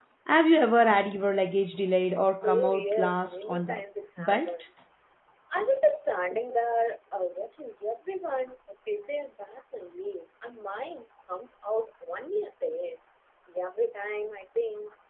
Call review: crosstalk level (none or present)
present